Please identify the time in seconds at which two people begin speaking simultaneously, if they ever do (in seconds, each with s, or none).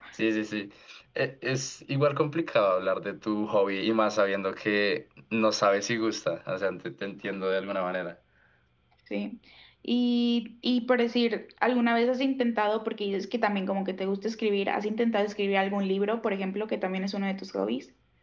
none